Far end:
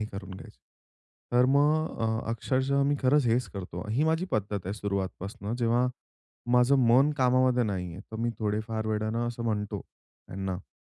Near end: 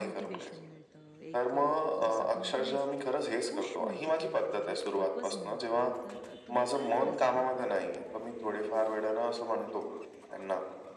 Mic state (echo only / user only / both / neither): both